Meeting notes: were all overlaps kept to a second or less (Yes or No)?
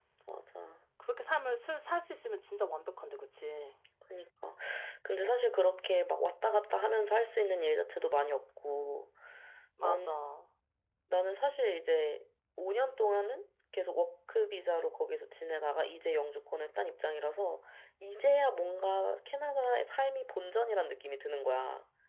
Yes